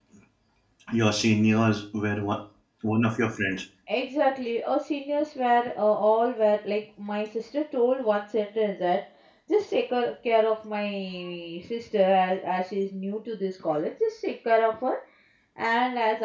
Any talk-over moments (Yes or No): No